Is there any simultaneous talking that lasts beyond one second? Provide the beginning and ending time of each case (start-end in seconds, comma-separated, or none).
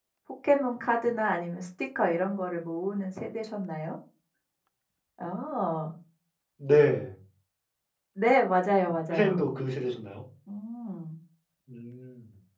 none